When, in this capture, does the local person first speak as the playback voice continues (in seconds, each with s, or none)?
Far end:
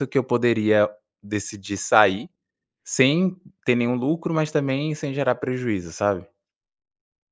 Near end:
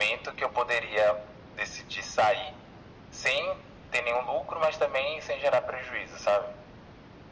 none